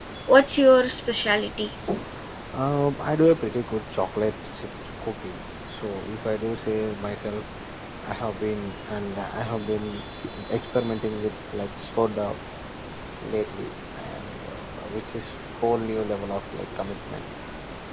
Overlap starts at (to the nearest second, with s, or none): none